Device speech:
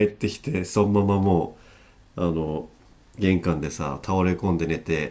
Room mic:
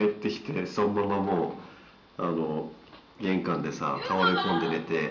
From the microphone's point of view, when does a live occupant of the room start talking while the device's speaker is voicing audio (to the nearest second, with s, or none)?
4 s